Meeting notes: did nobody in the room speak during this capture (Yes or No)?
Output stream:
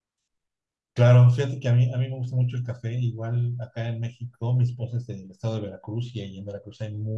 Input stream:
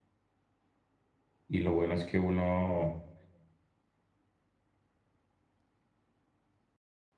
No